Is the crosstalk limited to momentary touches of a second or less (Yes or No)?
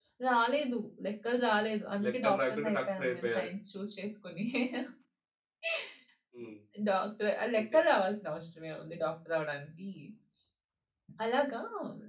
No